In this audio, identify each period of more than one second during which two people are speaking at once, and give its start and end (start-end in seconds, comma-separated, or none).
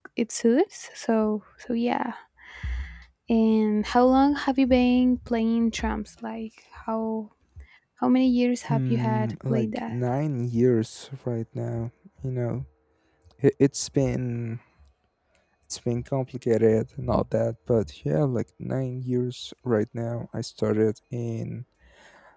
8.7-9.9